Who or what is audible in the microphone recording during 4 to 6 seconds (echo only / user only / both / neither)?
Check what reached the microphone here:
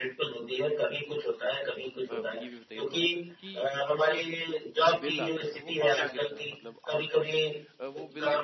both